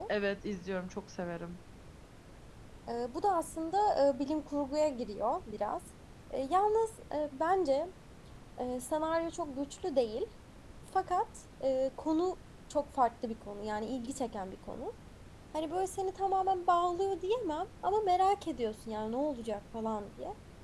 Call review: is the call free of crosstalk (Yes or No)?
Yes